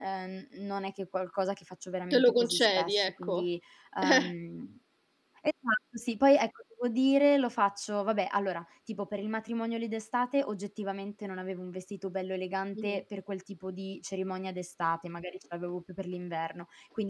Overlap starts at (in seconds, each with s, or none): 2.1 s